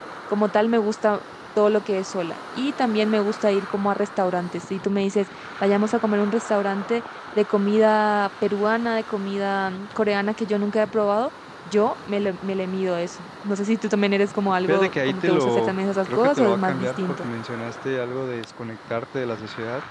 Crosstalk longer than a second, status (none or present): present